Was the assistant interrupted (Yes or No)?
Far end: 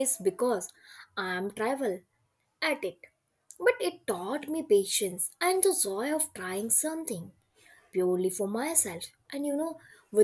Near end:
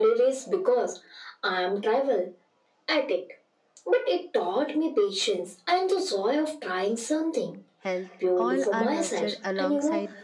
Yes